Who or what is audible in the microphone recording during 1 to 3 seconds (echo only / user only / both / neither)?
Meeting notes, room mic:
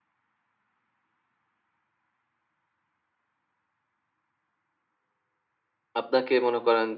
neither